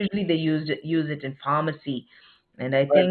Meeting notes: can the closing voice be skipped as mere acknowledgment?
No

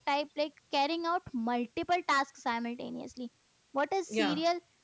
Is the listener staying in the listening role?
Yes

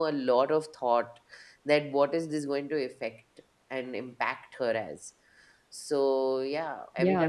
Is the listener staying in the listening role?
No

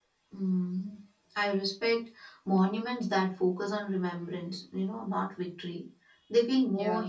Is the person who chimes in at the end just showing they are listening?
Yes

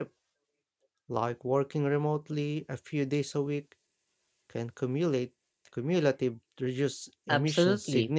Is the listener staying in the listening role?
No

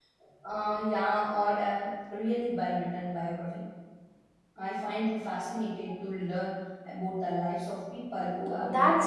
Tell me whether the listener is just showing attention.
No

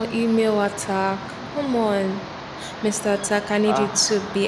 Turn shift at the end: No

